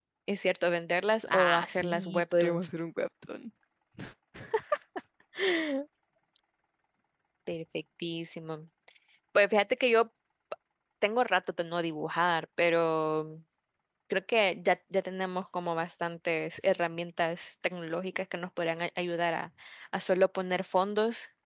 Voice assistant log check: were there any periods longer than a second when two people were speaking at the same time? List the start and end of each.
1.3-2.7

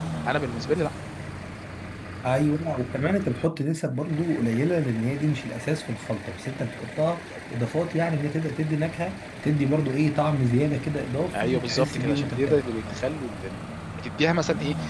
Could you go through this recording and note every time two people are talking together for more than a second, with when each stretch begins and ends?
11.3-12.6

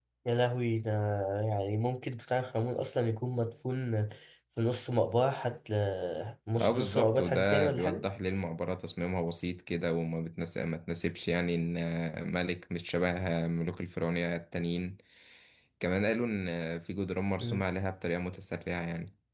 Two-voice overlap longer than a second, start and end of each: 6.6-8.0

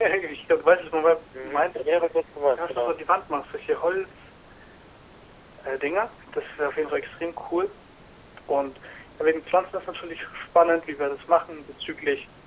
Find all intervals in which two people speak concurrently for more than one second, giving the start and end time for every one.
none

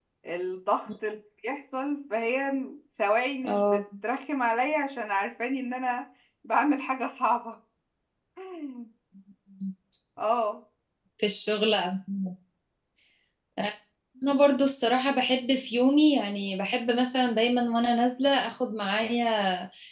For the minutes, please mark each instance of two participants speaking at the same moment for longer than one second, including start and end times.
none

